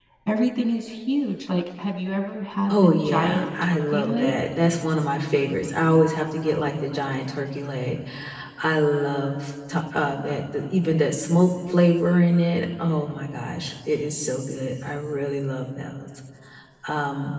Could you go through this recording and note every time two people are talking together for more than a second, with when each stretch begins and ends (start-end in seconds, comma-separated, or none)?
2.7-4.3